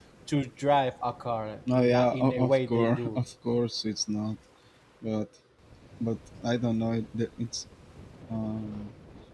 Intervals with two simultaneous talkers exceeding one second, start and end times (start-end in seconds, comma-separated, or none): 1.7-3.2